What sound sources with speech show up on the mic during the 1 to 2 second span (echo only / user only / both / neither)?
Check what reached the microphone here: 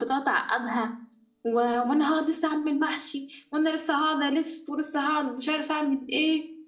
user only